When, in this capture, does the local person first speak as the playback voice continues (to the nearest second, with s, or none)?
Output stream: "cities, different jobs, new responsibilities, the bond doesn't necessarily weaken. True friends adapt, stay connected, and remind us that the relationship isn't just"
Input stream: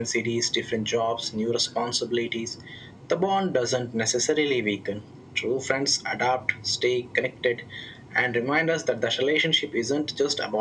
none